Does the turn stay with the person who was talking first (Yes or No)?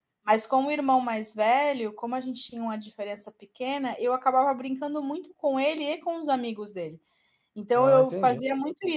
Yes